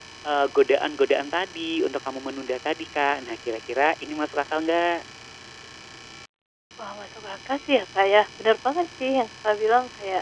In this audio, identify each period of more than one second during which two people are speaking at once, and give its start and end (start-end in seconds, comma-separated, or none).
none